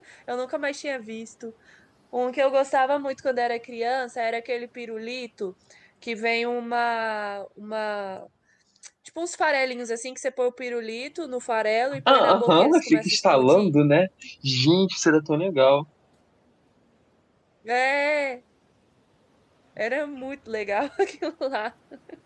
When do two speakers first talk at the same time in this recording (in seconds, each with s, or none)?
11.9 s